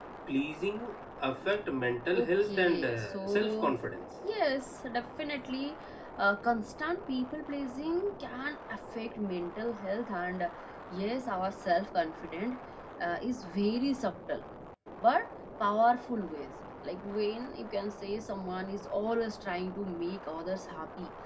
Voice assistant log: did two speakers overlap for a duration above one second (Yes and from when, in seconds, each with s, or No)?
Yes, from 2.1 s